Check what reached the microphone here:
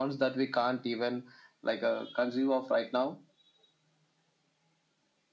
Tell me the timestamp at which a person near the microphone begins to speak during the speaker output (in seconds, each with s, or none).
none